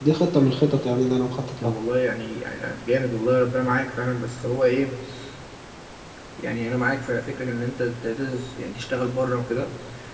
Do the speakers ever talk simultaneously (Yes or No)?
No